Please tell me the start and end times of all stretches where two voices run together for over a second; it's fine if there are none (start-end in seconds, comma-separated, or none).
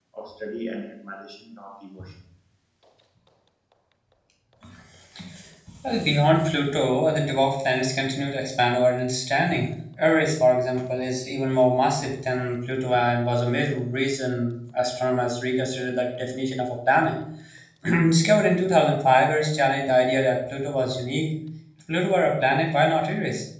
none